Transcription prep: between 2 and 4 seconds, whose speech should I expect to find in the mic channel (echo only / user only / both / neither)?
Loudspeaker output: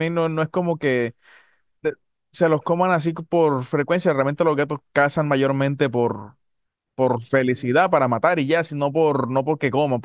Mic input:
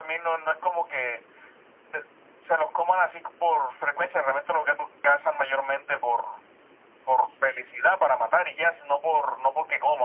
echo only